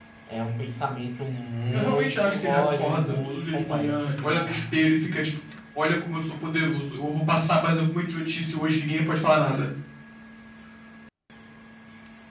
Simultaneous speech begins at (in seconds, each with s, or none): 1.7 s